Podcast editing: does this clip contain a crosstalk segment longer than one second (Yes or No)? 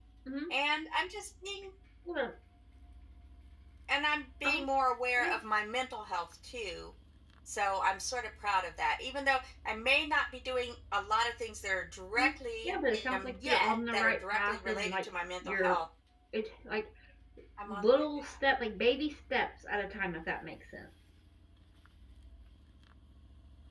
Yes